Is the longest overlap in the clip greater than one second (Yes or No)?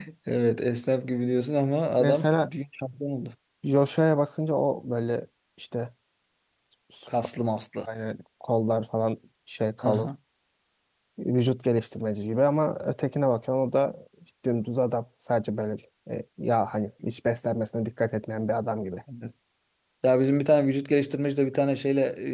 No